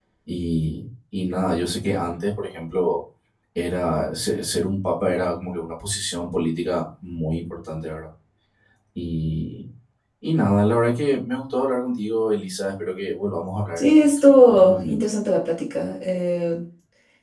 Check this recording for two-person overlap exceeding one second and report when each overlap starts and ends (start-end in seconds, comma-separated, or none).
13.8-15.1